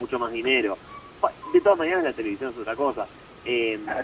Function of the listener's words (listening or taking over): listening